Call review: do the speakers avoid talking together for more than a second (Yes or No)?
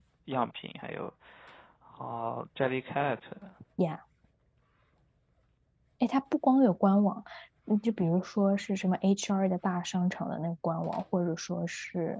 Yes